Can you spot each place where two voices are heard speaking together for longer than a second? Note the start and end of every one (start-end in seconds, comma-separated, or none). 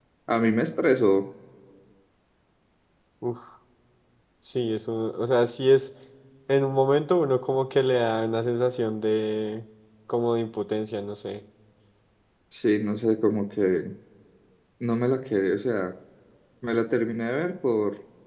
none